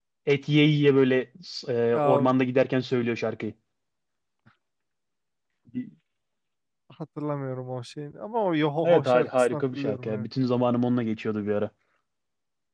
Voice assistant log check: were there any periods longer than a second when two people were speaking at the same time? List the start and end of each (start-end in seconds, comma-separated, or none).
8.8-10.3